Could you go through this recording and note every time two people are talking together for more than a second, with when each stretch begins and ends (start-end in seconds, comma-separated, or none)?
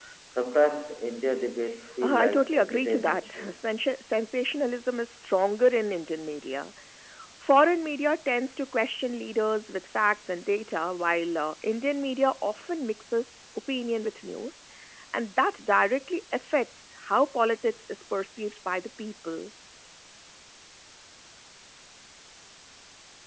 2.0-3.6